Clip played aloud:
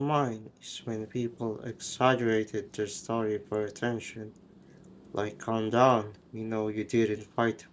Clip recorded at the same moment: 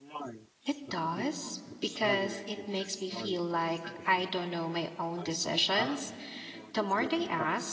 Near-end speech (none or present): present